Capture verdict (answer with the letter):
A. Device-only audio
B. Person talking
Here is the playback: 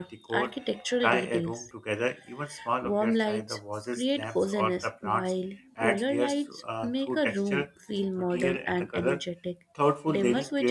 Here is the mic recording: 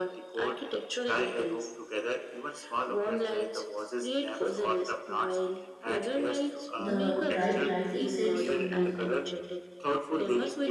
B